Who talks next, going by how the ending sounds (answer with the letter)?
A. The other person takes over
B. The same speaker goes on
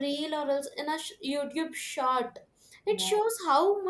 B